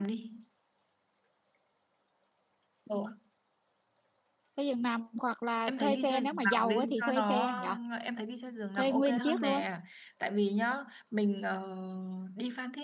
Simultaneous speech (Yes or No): Yes